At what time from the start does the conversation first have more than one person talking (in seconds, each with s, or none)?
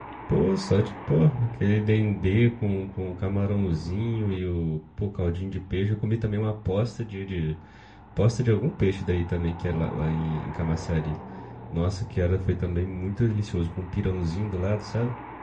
none